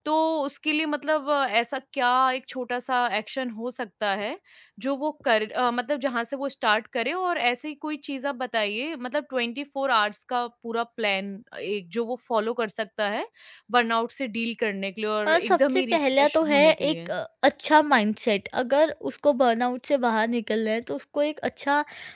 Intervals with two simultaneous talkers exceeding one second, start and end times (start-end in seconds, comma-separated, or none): 15.3-17.1